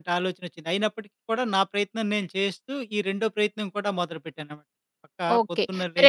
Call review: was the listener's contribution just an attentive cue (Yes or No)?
No